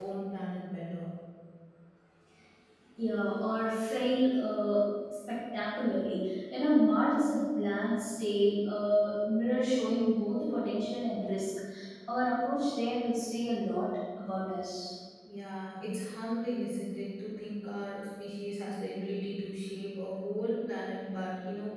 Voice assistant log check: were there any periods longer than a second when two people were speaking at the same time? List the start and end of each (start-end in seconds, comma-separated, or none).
none